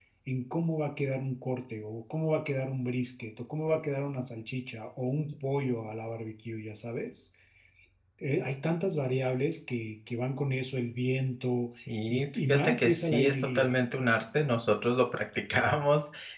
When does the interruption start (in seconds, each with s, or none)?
12.1 s